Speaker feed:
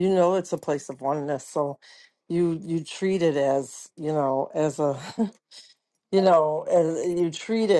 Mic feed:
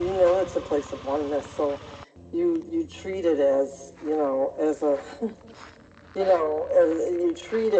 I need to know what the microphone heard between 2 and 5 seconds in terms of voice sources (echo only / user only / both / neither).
echo only